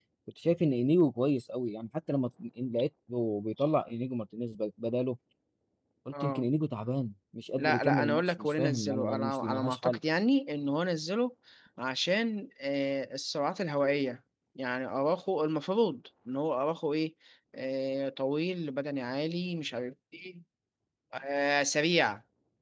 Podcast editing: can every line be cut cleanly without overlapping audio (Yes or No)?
No